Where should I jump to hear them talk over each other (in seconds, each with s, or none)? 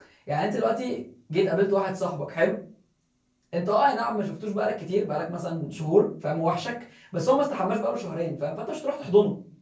none